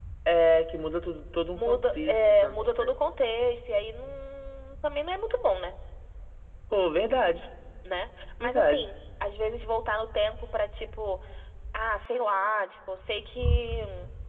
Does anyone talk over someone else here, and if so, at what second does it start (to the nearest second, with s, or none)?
2 s